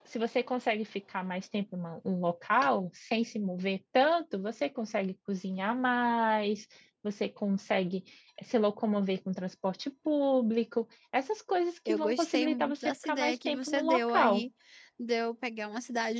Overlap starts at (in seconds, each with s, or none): 11.9 s